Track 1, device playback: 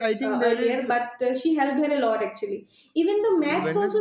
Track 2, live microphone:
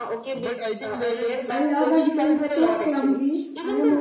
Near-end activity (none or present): present